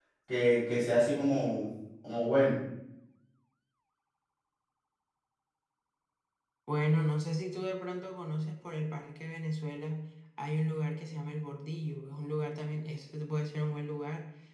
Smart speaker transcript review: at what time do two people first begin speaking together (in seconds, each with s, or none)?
none